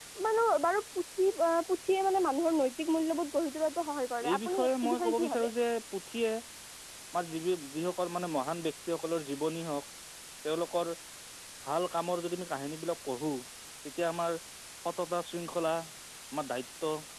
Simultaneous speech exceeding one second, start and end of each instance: 4.3-5.5

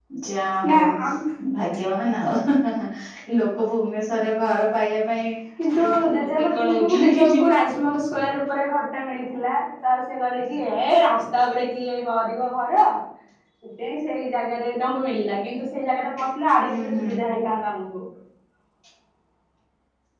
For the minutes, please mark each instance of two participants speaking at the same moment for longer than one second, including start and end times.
5.8-7.5

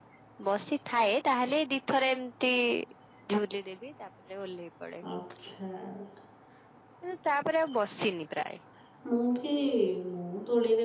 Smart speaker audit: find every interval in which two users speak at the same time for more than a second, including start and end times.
none

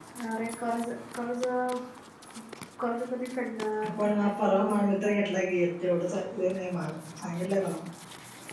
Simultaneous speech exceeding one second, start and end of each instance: 4.0-5.3

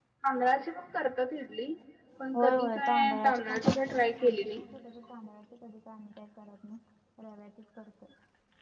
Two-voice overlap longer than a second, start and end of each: 2.3-4.6

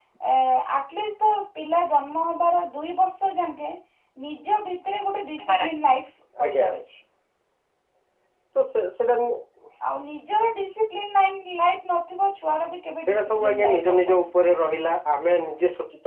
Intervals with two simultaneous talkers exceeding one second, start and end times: 13.1-14.3

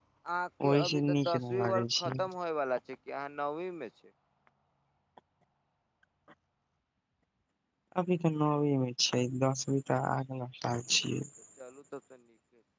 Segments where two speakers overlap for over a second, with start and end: 0.7-2.2

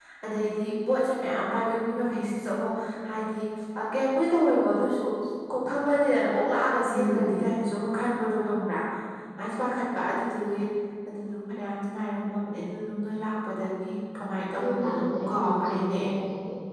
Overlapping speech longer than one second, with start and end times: 14.6-16.0

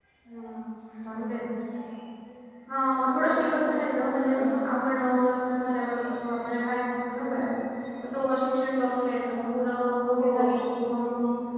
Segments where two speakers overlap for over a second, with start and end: 2.9-4.4

